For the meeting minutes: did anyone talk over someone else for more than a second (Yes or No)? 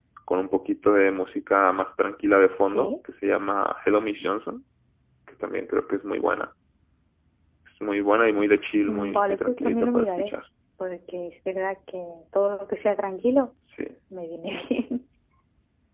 Yes